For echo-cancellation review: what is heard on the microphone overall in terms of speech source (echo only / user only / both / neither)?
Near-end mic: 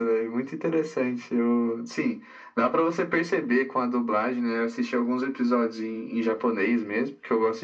echo only